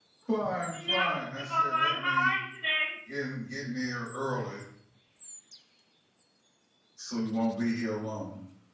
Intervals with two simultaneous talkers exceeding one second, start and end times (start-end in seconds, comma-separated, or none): 0.7-2.3